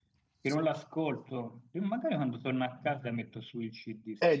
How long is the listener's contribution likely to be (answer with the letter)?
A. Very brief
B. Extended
B